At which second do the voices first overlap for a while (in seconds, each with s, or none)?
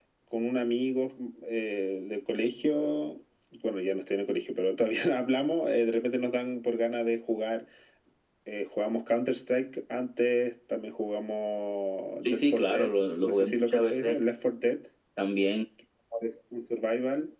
12.2 s